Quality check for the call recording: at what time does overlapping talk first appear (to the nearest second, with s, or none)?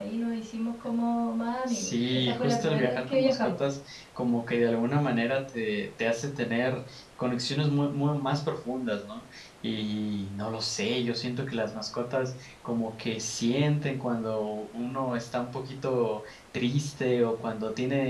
2 s